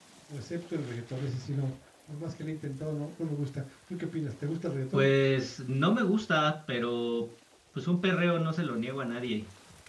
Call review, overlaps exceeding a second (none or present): none